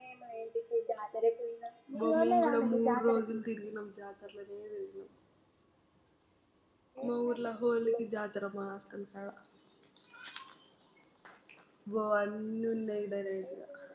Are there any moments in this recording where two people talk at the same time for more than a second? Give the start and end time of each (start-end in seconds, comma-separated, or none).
2.0-3.2